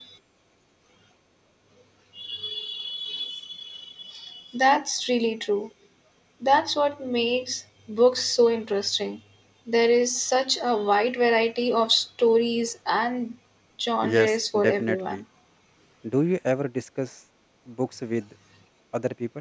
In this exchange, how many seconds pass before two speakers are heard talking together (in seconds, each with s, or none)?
14.0 s